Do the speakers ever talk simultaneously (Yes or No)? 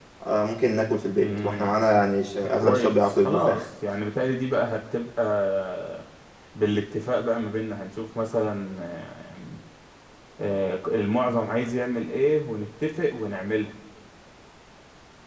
Yes